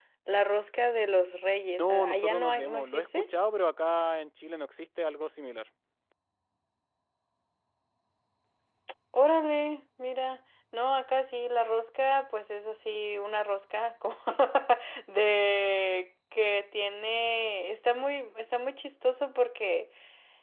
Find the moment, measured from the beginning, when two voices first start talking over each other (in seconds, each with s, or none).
1.8 s